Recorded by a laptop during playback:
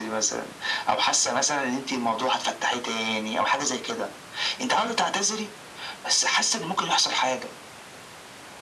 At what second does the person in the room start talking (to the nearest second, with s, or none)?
none